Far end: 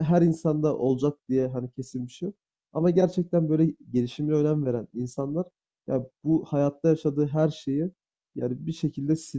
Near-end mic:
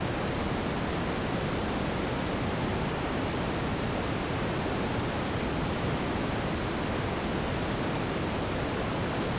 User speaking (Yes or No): No